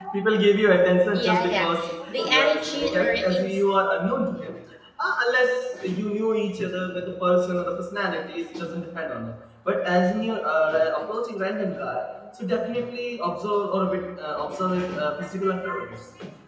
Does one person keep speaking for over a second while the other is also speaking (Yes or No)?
Yes